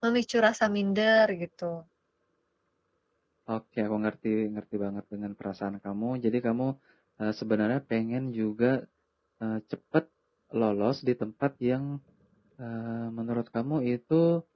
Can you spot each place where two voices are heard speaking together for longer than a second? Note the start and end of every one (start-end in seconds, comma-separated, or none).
none